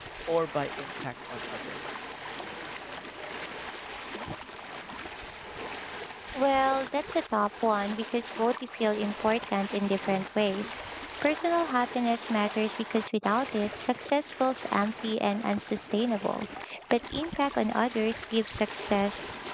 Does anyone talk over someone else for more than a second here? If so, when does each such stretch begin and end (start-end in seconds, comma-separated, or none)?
none